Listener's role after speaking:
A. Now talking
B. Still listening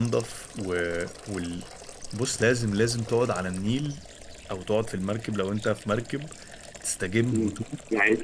A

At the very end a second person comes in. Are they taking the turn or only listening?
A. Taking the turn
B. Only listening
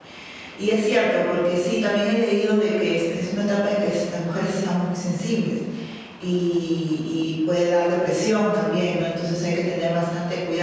B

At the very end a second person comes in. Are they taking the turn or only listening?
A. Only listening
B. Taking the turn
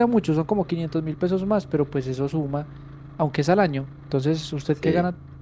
A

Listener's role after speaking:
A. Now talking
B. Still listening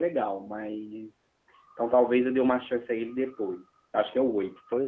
B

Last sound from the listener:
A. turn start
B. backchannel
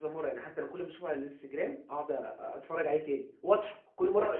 A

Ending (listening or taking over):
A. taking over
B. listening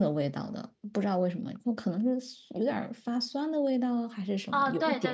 A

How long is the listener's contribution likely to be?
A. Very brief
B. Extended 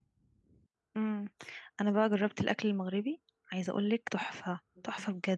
B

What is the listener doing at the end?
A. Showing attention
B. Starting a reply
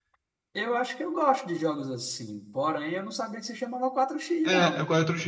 B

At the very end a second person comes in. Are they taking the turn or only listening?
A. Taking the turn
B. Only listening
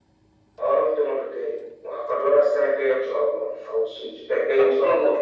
A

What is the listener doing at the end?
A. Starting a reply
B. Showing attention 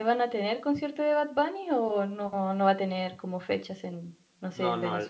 A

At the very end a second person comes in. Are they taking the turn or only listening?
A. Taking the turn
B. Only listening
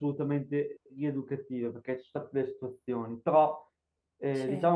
B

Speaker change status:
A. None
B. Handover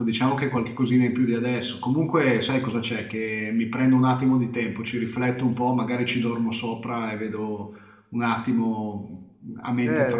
B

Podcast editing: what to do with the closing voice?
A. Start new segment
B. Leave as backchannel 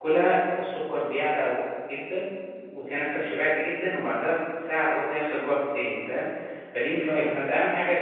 B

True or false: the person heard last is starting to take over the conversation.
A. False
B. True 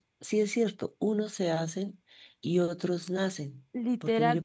B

